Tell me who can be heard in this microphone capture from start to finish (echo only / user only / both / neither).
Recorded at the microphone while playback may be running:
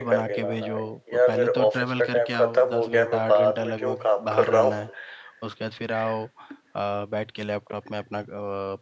both